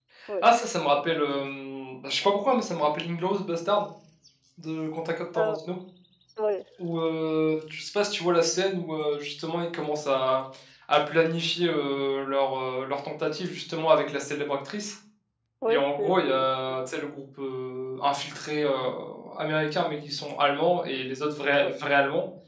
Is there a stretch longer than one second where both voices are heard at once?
Yes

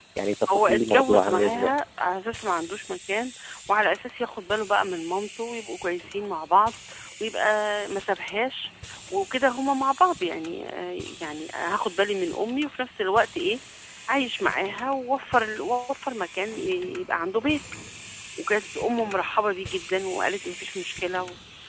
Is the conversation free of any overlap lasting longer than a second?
No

